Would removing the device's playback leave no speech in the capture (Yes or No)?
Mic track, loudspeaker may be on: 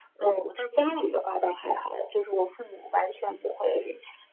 Yes